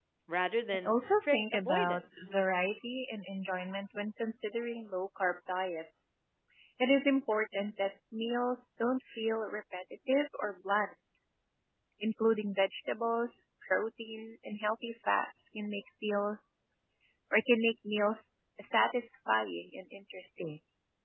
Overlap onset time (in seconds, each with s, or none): 0.7 s